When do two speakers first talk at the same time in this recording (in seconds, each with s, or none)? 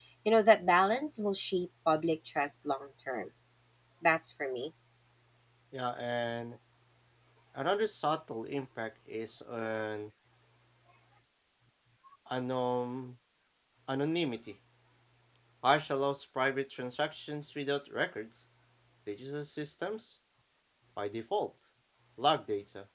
none